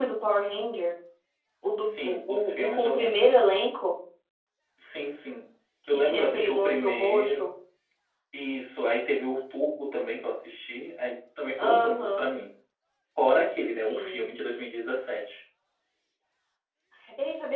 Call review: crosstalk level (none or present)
present